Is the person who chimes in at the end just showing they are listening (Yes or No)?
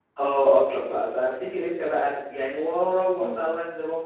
Yes